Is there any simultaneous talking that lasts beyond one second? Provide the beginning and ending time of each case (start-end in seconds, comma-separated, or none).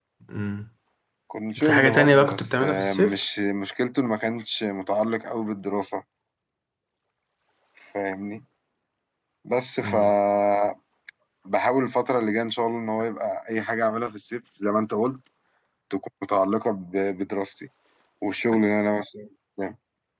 1.6-3.1